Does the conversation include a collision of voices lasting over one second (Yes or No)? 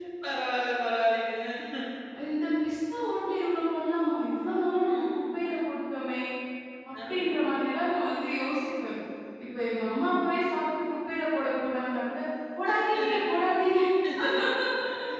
No